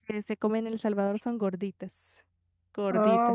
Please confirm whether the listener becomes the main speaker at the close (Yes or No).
Yes